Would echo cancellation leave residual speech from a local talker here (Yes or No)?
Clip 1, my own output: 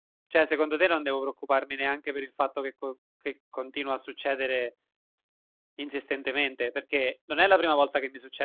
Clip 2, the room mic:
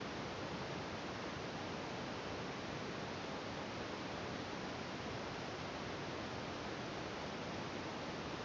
No